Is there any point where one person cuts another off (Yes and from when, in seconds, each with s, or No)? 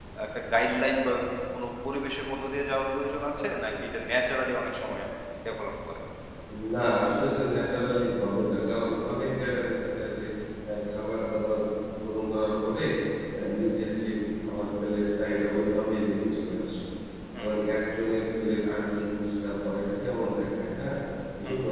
No